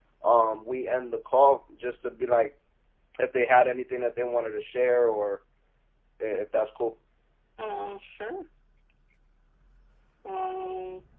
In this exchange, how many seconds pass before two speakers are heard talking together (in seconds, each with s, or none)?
none